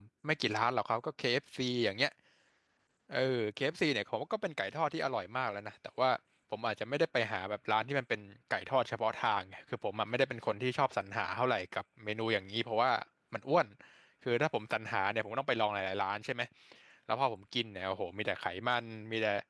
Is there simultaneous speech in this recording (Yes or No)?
No